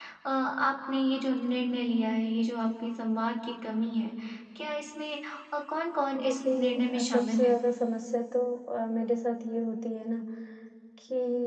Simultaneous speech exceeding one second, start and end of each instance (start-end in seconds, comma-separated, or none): 6.2-7.5